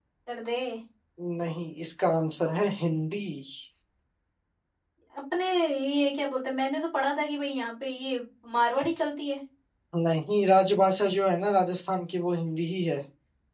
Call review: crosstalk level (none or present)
none